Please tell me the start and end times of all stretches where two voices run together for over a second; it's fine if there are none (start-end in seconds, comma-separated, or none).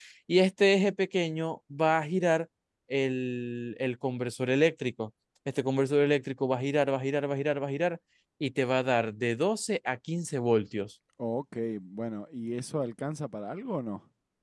none